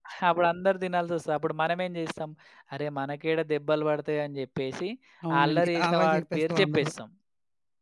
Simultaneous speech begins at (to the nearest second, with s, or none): 5 s